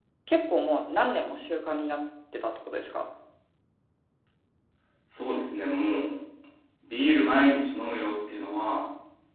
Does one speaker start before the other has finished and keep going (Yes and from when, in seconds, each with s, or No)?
No